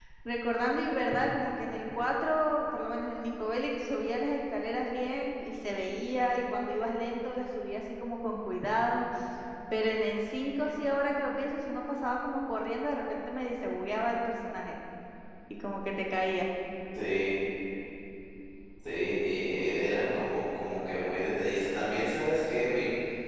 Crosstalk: none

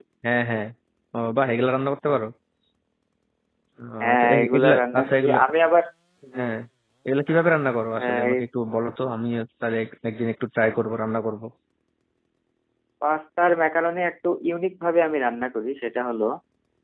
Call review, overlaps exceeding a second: present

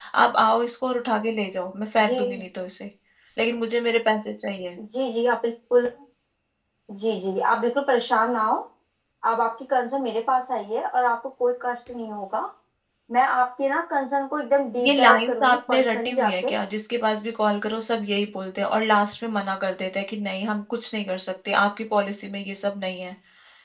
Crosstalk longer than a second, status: present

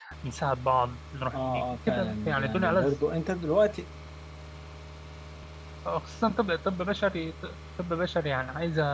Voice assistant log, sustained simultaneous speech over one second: present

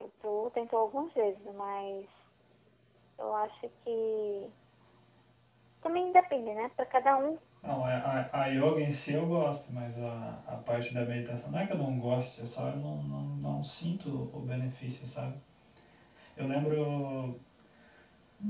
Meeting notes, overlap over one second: none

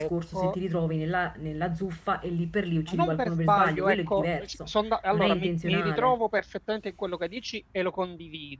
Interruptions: present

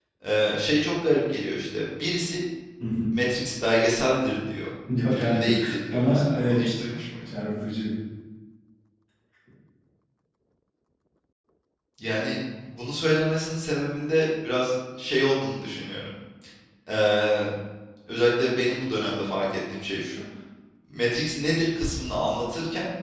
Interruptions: present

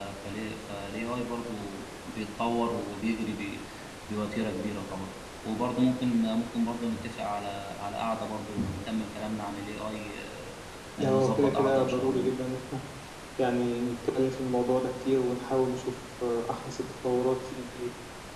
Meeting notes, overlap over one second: present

